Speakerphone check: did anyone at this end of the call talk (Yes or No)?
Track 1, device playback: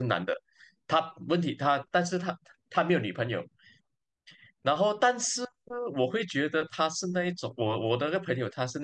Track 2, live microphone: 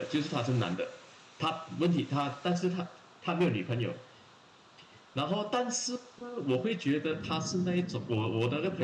No